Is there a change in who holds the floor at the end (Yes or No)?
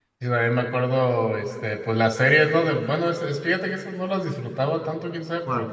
No